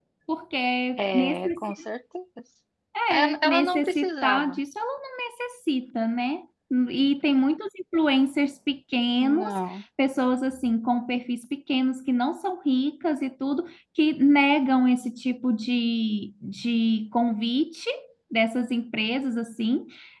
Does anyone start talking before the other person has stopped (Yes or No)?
Yes